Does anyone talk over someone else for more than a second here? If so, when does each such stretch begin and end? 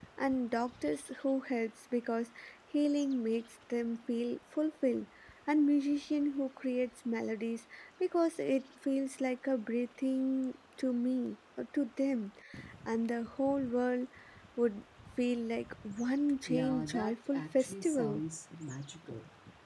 16.5-18.2

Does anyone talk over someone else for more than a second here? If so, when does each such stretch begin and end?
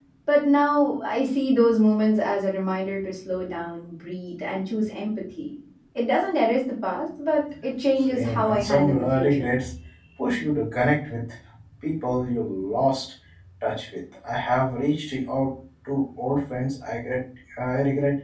8.1-9.5

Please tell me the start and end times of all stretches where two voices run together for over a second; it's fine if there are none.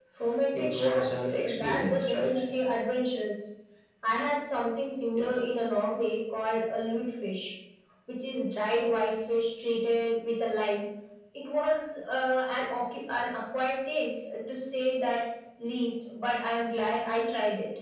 0.5-2.4

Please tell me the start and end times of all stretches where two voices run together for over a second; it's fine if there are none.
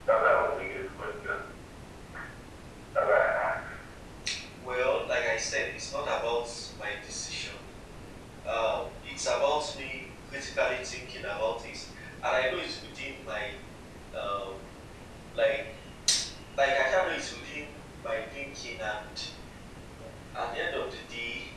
none

